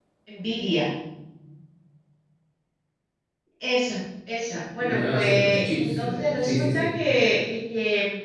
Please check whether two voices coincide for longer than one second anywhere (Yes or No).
Yes